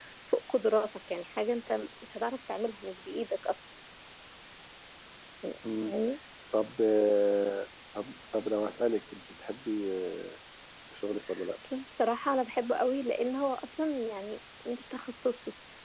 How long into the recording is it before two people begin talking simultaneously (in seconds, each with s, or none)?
none